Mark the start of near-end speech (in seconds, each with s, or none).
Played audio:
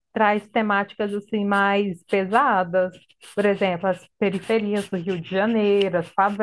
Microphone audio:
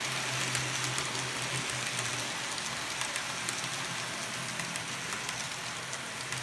none